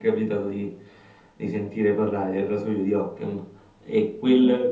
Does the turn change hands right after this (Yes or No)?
No